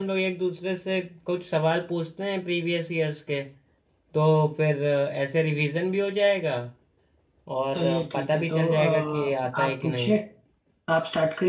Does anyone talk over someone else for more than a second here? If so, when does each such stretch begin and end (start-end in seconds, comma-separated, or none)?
7.8-10.1